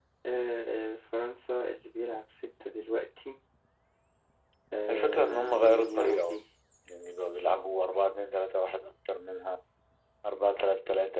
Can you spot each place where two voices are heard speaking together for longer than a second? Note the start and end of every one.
4.9-6.4

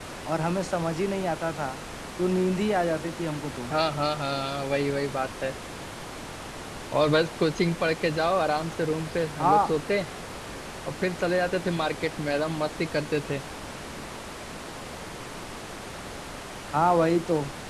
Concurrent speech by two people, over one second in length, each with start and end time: none

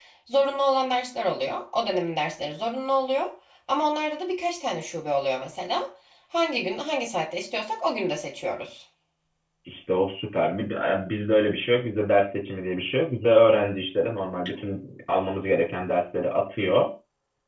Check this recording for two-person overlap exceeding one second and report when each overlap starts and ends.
none

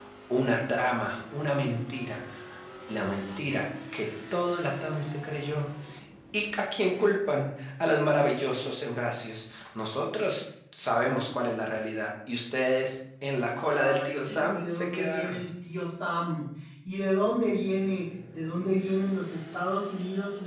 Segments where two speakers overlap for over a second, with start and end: 13.6-15.4

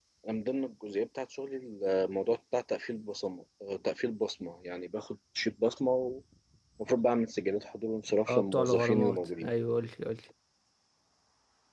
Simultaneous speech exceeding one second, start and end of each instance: 8.3-9.5

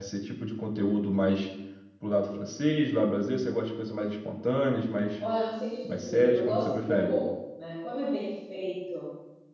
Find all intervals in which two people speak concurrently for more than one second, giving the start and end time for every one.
5.9-7.1

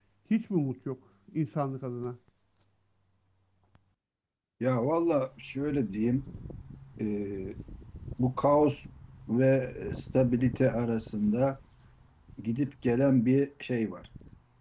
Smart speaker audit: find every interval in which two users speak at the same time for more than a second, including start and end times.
none

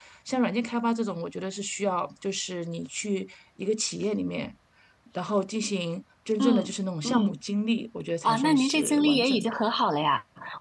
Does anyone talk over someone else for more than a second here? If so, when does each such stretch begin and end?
8.2-9.5

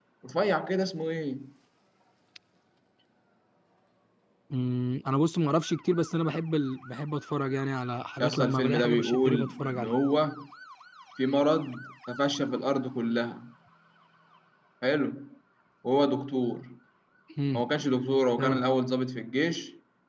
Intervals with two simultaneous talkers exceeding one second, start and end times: 8.2-9.9

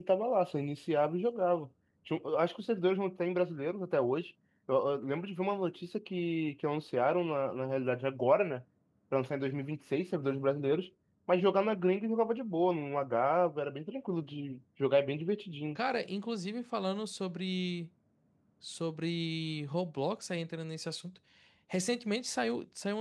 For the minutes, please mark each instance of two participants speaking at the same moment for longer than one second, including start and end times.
none

